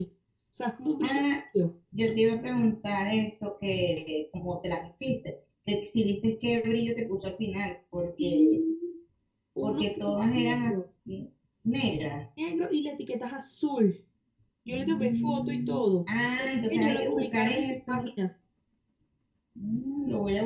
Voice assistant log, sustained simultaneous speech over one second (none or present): present